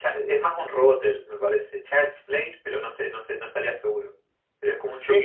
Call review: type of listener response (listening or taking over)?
taking over